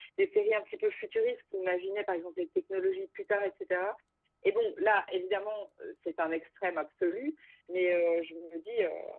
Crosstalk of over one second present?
No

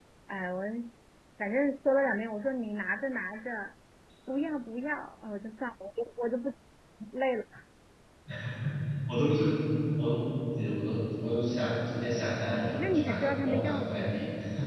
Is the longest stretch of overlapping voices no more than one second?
No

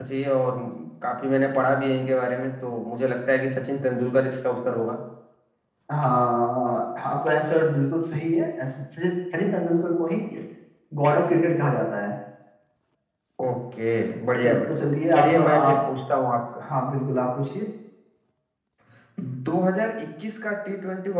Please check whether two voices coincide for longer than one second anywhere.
Yes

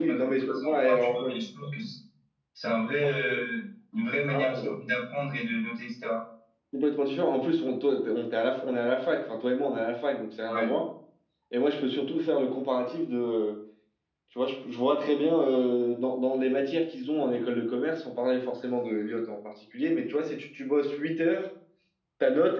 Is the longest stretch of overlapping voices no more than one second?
No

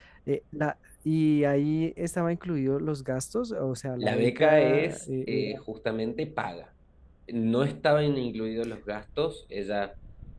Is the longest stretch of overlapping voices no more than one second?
No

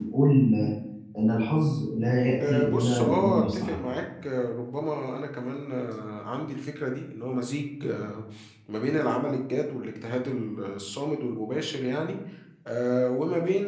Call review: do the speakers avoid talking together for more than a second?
No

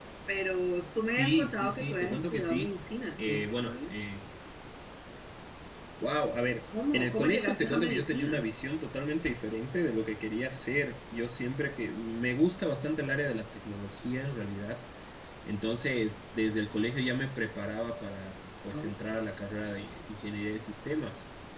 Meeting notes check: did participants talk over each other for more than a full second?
Yes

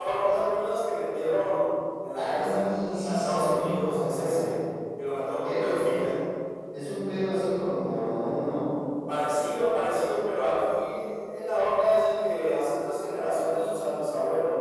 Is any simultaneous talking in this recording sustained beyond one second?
Yes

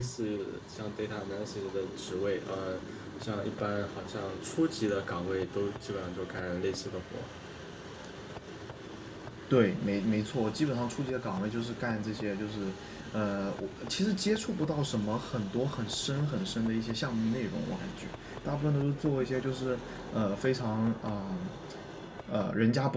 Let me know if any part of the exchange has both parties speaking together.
No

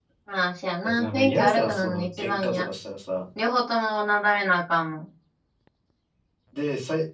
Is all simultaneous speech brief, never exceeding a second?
No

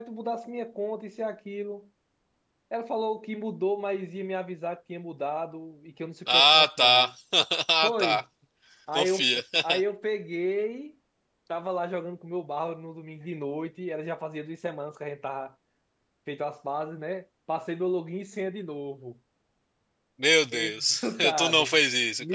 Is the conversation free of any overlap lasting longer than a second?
No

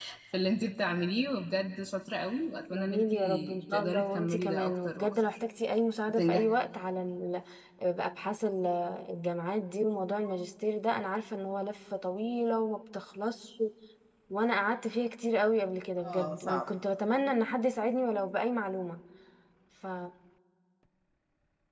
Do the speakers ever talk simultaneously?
Yes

